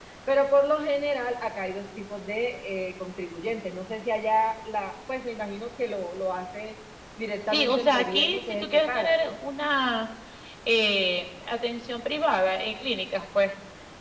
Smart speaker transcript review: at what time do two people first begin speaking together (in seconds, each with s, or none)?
7.5 s